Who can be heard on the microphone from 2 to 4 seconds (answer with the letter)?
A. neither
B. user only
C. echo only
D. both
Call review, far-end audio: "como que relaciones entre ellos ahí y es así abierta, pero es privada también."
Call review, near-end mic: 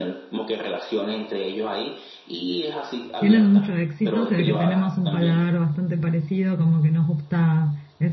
D